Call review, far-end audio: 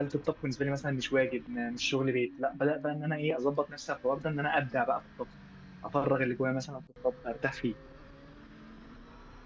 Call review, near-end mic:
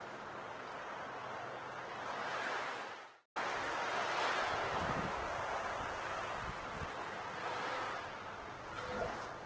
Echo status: none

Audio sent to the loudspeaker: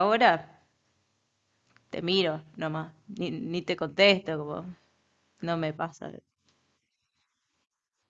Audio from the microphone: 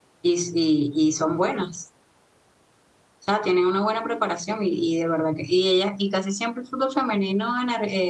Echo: none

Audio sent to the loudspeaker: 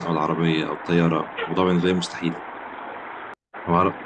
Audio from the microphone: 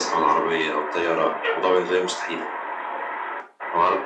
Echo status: present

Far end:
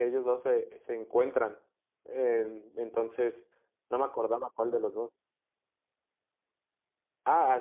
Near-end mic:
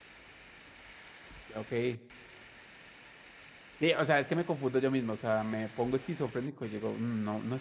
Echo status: none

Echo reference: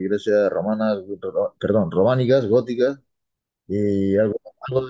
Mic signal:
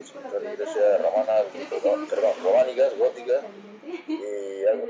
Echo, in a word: present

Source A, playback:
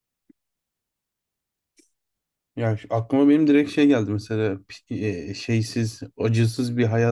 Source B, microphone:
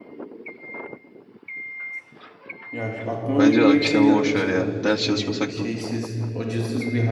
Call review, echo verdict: present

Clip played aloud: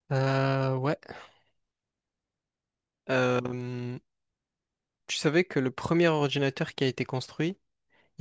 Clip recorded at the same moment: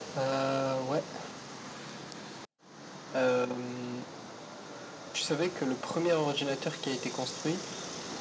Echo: present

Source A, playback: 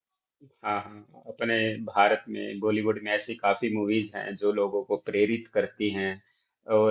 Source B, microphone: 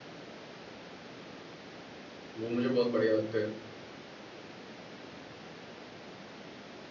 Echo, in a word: none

